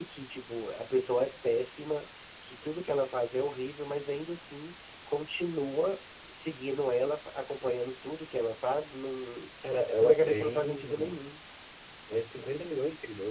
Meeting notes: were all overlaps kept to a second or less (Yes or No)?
No